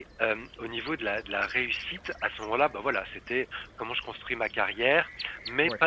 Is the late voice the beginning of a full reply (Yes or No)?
No